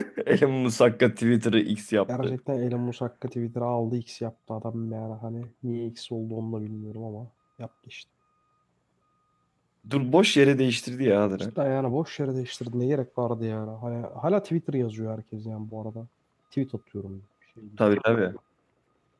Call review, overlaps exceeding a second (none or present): none